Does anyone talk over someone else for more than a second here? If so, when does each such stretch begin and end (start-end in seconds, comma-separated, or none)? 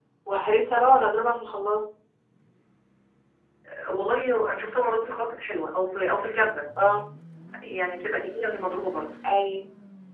none